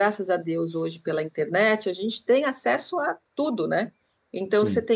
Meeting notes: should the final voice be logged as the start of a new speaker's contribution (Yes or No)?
No